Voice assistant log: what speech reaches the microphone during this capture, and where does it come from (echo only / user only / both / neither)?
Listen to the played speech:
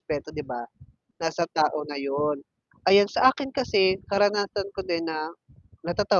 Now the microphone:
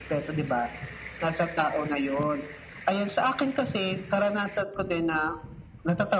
echo only